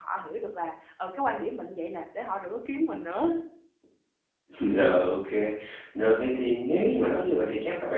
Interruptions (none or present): none